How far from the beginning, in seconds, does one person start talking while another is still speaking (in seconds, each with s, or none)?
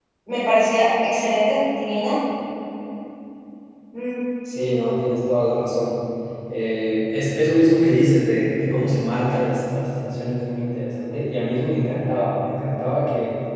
none